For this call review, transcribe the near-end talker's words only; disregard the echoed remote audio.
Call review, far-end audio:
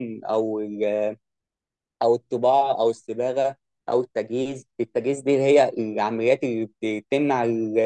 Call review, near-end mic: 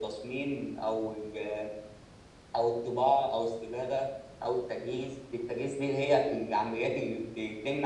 none

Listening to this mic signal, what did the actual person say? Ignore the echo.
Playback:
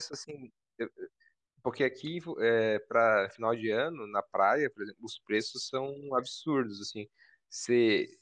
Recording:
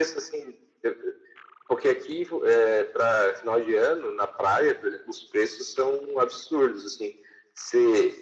none

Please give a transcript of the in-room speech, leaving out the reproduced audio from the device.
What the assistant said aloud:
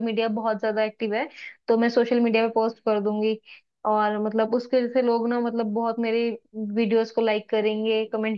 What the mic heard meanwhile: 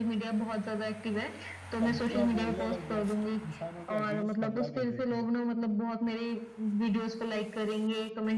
सब्जियां बोलने लग जाती है इंसानों के अगेंस्ट हमला कर देती है

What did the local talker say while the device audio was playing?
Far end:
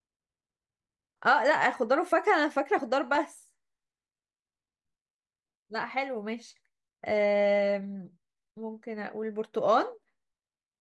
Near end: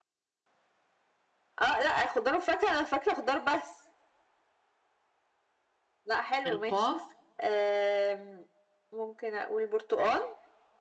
القاف

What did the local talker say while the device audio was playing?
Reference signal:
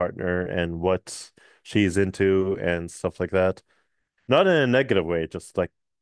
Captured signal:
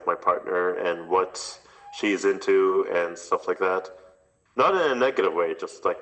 none

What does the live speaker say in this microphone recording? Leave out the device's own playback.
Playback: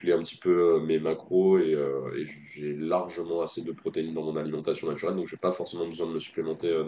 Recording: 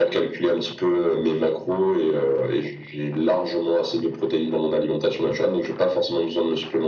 none

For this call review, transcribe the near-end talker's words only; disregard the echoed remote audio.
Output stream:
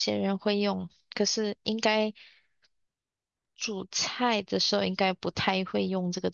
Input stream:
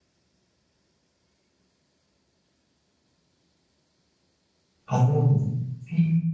哦，OK，

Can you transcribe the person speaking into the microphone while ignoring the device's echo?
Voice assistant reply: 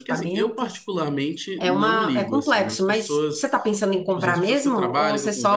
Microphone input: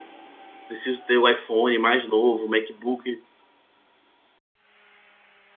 preciso ter o iPhone mais novo, o MacBook

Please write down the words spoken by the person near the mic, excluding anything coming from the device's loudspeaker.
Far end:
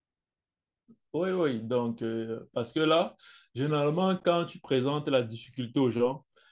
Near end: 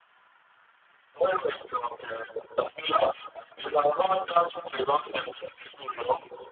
none

